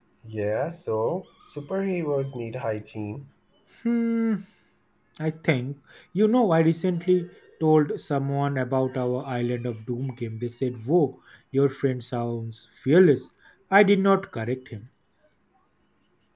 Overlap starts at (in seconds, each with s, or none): none